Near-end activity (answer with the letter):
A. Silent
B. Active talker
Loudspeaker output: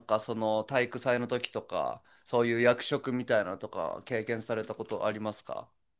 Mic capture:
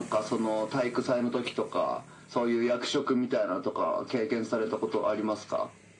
A